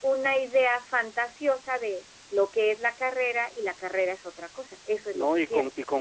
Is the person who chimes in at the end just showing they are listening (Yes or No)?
No